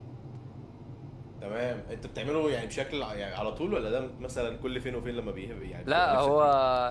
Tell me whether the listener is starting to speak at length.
Yes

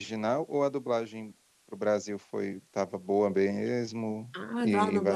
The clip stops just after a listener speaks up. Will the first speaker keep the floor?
No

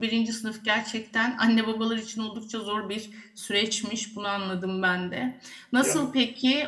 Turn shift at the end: No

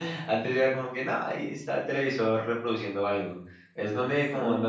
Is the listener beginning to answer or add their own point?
No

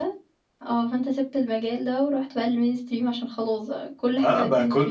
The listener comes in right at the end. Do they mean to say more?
Yes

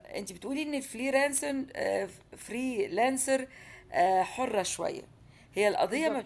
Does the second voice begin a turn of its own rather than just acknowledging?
No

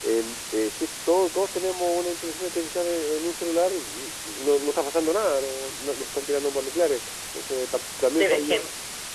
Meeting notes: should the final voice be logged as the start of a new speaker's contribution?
Yes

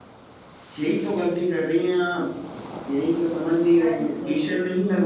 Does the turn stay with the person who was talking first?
Yes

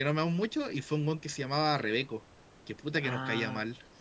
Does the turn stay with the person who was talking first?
No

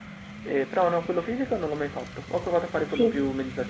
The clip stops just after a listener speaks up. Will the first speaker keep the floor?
Yes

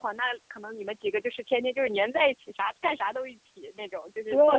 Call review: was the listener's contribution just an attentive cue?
No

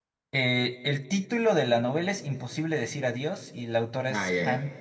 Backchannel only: No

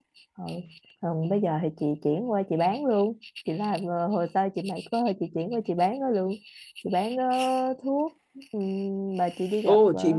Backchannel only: No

